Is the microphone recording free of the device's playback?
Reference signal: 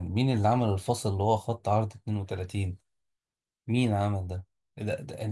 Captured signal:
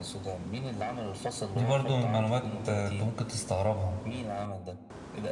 No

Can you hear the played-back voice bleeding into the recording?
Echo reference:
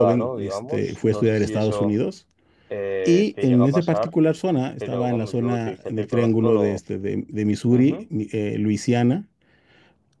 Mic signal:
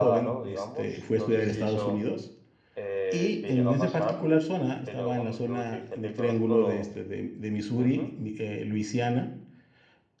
Yes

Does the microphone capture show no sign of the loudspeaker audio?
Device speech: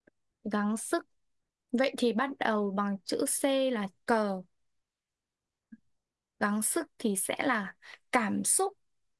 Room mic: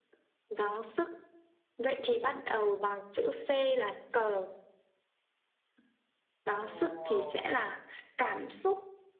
No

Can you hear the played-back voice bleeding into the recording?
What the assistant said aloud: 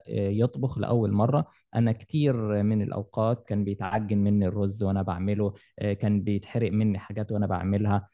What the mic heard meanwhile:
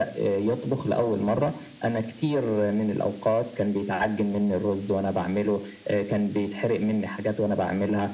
Yes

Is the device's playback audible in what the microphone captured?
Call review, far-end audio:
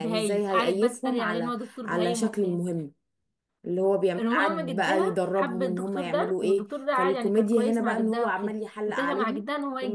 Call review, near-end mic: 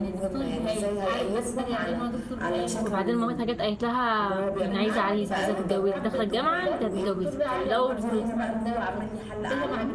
Yes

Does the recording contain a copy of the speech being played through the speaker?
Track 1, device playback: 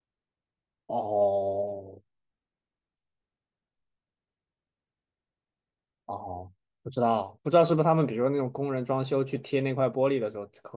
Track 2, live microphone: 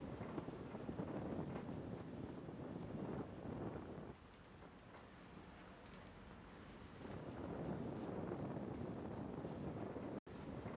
No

